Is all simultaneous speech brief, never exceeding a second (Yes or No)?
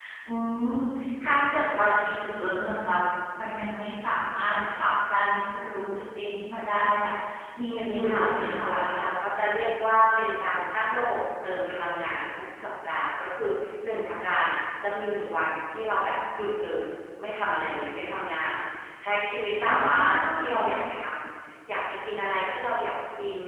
No